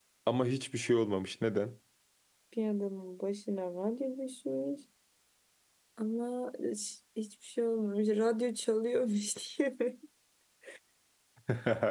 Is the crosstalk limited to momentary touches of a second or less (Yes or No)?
Yes